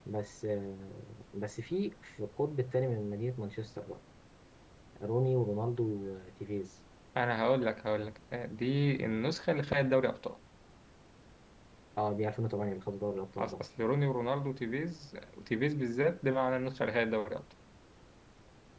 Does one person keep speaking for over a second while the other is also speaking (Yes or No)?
No